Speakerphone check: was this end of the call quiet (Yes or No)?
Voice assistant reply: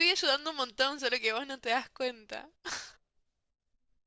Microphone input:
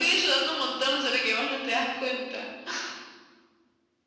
Yes